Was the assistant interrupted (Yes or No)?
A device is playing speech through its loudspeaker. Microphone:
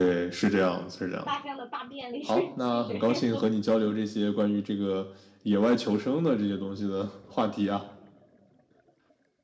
Yes